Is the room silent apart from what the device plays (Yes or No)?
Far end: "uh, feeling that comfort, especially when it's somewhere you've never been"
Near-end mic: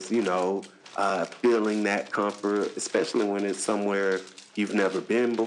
Yes